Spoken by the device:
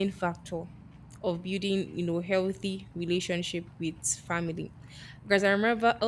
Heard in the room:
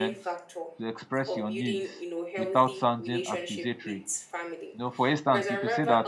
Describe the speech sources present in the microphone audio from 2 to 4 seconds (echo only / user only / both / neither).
both